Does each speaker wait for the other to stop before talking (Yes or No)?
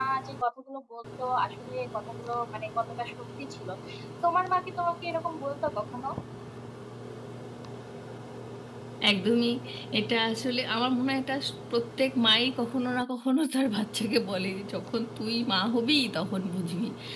Yes